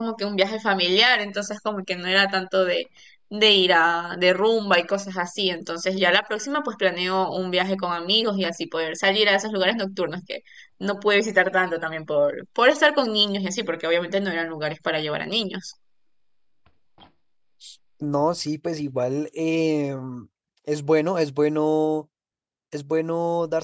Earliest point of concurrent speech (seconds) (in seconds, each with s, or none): none